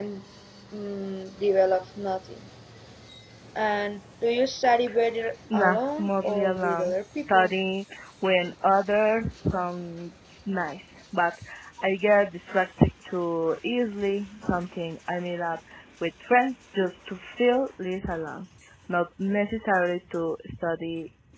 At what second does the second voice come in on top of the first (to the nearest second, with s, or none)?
6 s